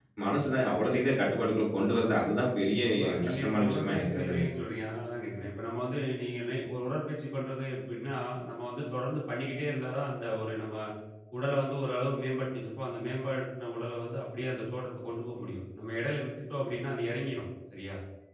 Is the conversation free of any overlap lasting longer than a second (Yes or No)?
No